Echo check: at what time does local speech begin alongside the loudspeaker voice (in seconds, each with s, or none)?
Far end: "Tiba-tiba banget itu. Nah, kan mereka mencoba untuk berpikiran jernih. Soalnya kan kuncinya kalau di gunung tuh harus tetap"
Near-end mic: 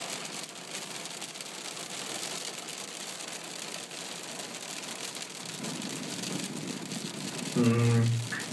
7.5 s